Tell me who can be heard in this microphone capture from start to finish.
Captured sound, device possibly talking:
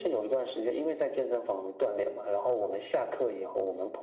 echo only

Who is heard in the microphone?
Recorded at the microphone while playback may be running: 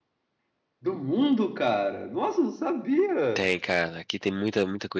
both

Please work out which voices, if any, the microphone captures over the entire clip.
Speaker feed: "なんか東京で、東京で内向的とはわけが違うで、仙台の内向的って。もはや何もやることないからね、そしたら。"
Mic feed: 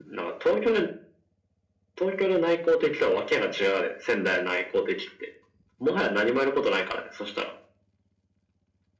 echo only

